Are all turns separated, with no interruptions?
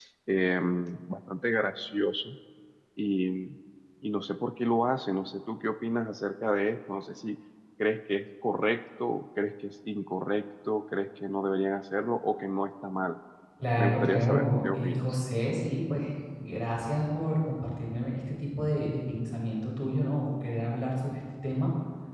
No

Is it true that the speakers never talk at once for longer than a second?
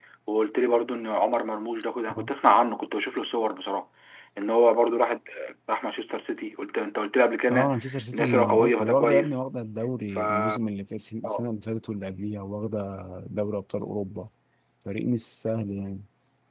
No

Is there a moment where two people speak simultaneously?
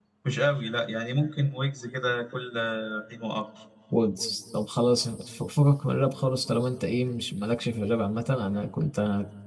No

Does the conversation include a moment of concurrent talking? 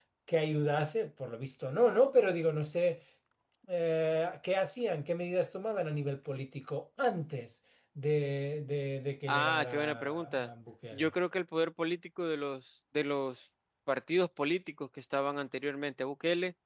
Yes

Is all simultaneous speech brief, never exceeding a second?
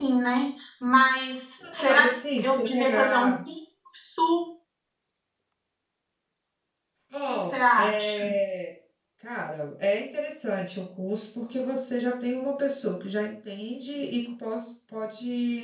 No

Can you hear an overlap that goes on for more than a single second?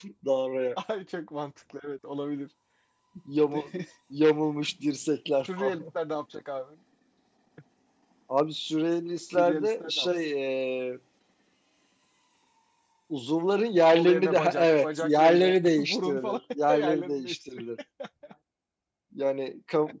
Yes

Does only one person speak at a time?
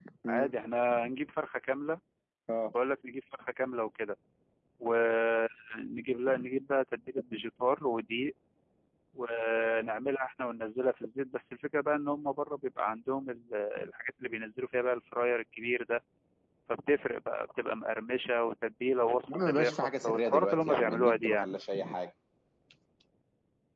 No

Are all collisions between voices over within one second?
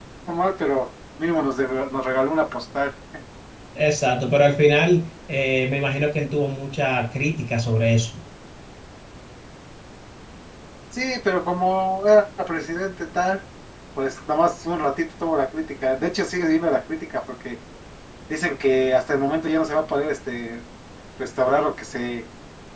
Yes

